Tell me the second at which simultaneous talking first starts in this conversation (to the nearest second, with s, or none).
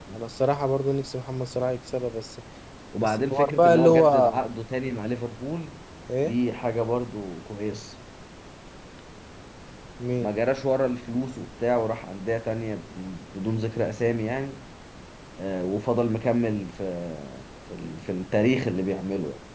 3 s